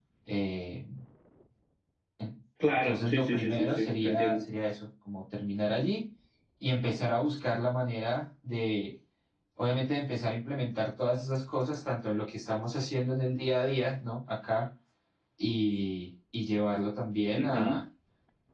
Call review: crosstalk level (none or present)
present